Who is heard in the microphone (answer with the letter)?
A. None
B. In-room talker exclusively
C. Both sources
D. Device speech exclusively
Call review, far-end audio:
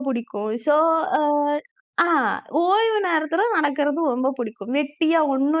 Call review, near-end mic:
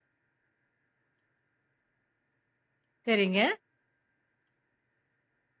B